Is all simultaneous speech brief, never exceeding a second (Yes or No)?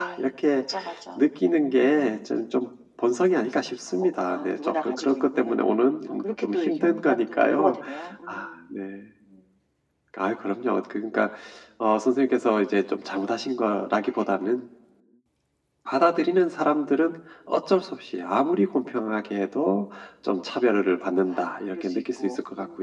No